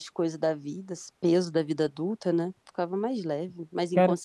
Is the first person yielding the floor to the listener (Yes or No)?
Yes